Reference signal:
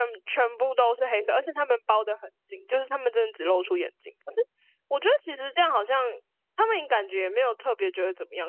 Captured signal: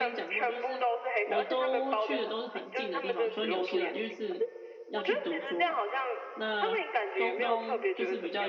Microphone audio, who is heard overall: both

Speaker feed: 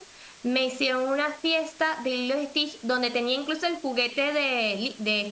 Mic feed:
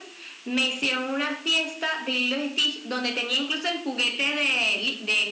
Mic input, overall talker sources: echo only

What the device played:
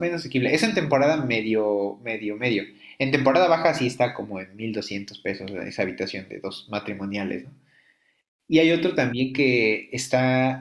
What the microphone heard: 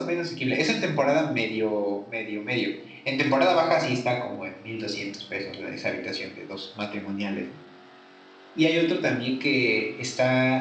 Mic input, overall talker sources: echo only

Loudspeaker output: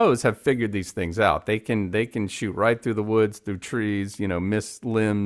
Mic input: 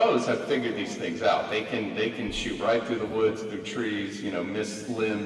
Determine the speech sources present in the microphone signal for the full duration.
both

